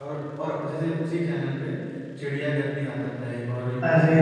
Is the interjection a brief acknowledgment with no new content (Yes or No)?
No